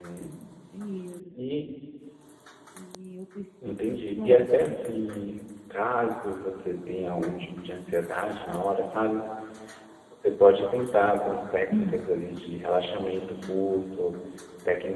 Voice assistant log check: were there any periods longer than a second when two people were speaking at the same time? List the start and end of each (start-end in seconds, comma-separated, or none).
3.7-5.0